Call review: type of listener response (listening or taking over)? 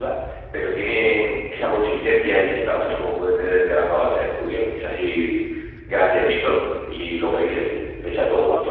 listening